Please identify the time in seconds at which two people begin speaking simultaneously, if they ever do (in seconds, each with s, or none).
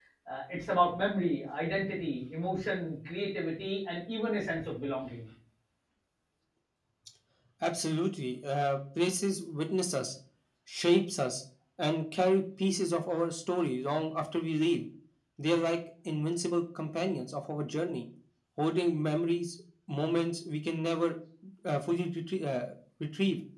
none